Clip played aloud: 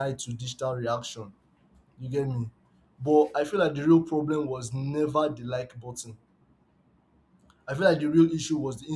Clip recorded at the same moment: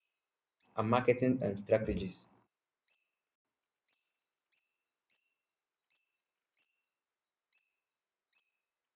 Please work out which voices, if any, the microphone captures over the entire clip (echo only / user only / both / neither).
user only